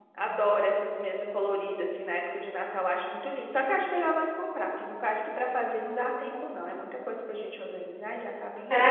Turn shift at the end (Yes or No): Yes